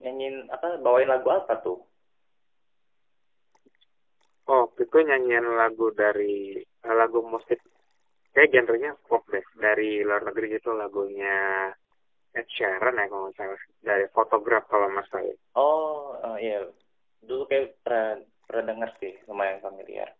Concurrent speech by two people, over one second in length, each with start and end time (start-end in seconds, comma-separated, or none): none